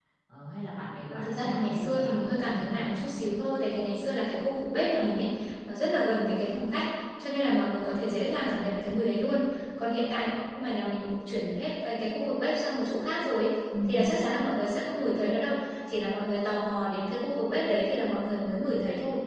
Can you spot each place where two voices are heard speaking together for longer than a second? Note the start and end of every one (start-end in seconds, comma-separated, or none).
1.1-3.2